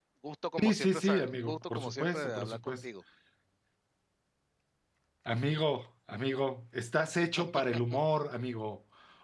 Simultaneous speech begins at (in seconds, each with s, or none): 0.6 s